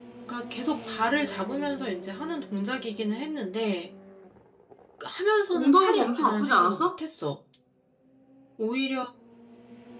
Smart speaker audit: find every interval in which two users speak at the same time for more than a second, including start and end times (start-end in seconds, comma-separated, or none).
5.5-6.9